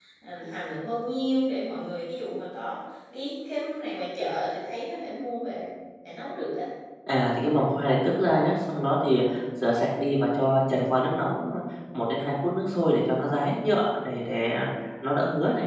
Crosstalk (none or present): none